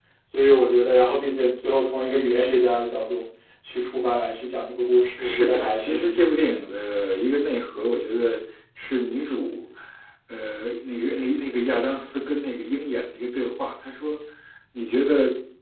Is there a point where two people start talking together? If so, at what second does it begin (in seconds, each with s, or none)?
5.2 s